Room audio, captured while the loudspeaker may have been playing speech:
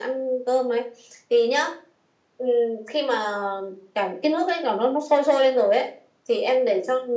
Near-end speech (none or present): none